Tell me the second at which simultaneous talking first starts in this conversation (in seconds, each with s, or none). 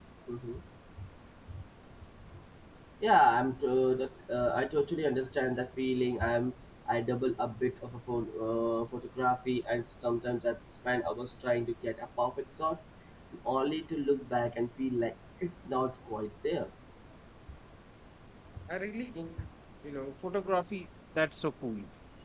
none